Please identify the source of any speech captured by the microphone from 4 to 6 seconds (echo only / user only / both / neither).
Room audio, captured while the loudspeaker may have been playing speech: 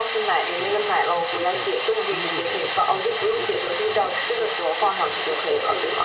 both